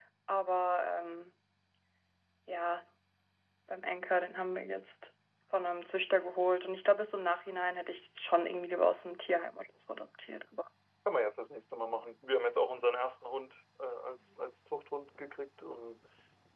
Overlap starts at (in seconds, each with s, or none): none